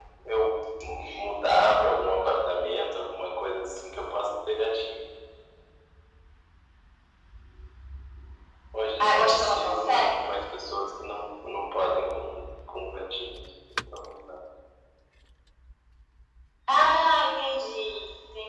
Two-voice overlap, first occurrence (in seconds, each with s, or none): 9.0 s